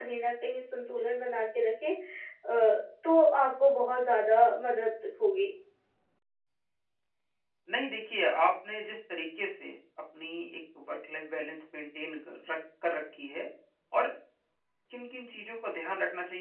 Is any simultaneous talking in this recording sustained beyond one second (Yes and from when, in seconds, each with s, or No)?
No